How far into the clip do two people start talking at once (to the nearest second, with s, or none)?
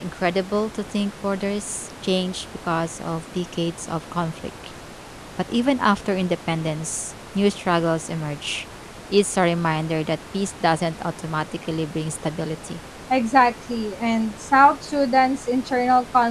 none